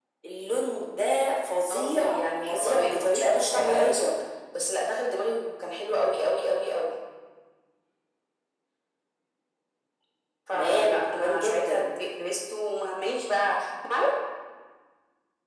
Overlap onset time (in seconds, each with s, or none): 1.7 s